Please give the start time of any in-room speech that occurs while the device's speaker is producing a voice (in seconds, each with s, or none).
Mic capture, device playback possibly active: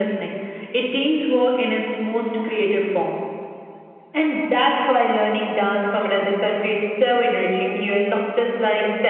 none